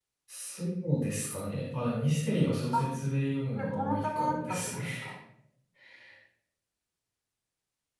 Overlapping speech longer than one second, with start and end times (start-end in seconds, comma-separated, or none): 3.5-4.8